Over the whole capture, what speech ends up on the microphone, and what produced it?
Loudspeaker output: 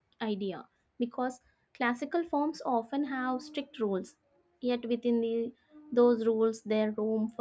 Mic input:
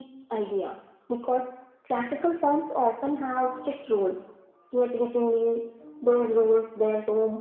echo only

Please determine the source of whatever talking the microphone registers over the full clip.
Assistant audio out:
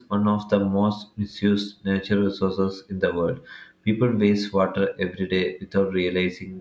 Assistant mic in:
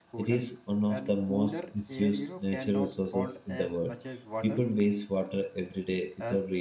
both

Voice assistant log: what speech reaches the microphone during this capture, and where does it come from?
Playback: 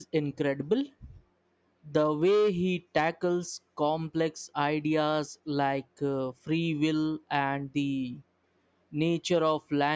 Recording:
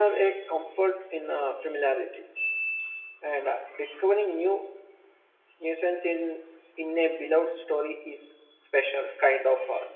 user only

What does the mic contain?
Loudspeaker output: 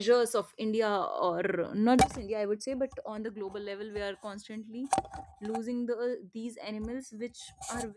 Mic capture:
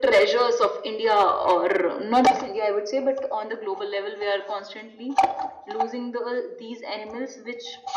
echo only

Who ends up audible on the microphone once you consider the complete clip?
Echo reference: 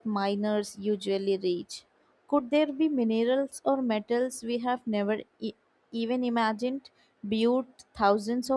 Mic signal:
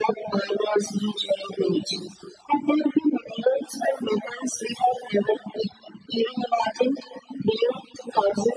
echo only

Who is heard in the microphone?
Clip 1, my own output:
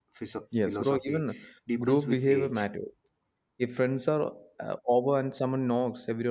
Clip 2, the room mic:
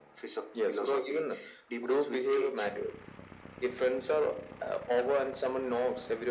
echo only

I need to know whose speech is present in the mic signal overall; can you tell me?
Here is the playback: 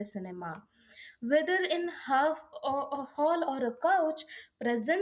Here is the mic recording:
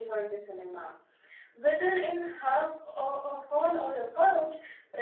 echo only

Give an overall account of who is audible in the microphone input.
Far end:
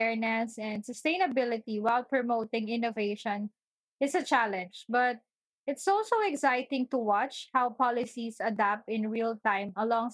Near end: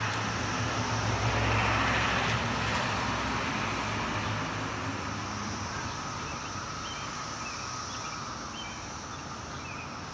neither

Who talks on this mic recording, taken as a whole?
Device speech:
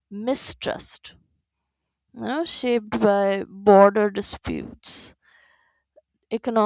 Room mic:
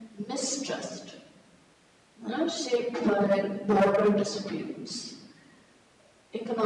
echo only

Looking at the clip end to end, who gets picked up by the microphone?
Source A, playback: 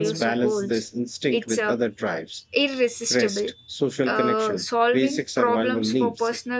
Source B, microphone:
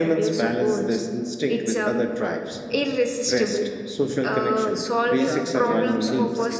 both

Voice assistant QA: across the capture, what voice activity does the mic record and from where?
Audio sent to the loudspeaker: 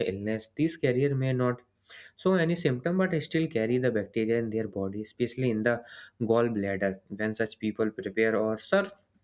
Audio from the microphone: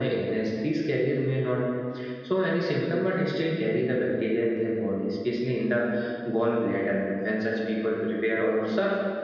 echo only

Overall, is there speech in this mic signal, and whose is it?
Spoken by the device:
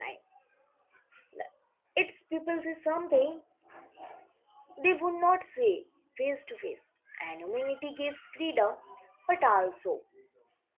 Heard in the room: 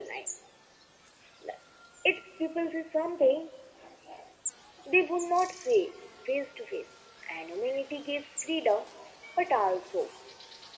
echo only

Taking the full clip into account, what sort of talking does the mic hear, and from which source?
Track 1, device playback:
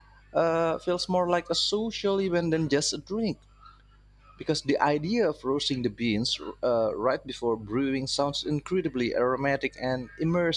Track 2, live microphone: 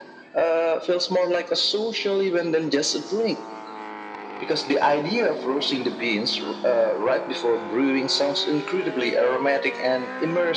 echo only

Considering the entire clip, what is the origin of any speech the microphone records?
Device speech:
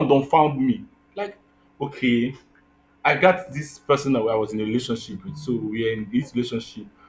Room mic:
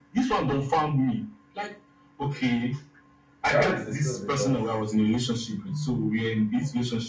both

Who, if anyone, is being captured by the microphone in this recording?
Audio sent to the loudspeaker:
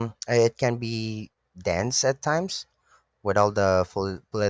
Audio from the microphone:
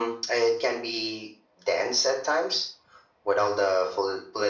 echo only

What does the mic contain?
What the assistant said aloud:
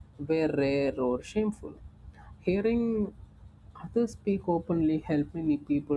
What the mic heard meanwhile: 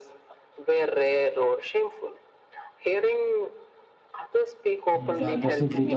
both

